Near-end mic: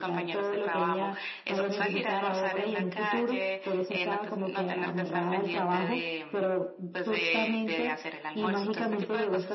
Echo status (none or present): present